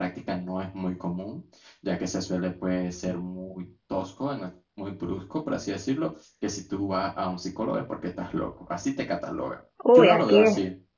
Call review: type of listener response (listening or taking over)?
taking over